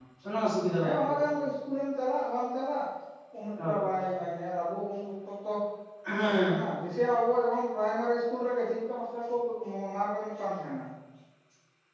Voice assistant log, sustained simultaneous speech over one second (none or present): none